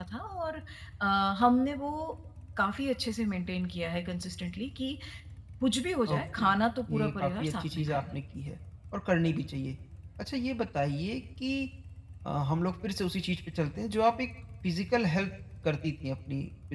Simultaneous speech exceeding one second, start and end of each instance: 6.9-8.1

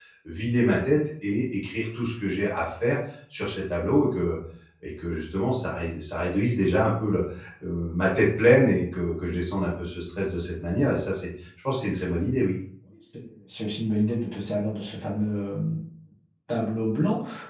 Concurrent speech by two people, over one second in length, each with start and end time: none

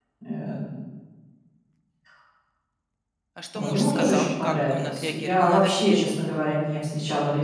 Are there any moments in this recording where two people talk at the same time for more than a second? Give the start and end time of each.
3.5-6.1

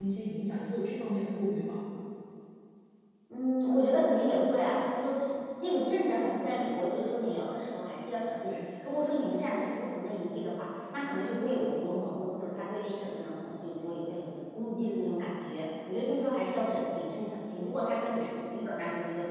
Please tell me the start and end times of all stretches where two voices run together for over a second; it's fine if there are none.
none

